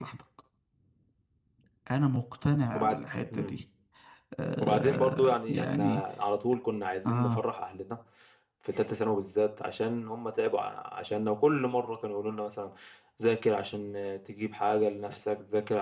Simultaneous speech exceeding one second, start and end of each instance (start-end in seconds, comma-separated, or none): 4.6-6.0